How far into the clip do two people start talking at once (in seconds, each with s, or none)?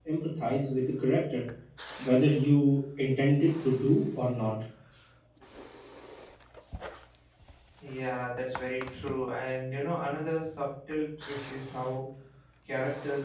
none